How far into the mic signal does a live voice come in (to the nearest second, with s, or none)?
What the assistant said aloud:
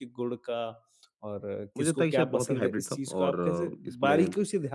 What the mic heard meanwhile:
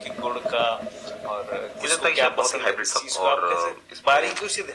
none